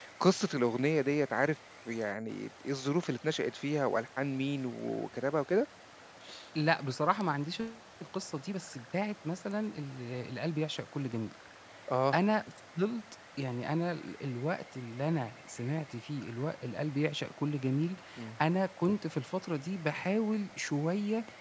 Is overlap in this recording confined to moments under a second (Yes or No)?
Yes